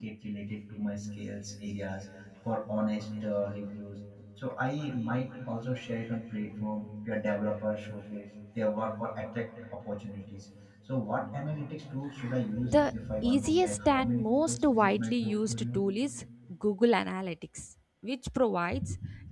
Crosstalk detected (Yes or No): Yes